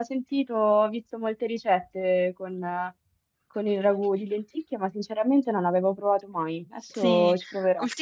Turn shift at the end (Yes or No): Yes